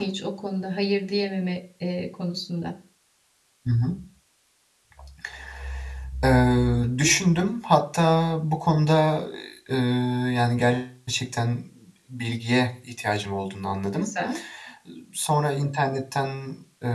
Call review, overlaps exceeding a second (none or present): none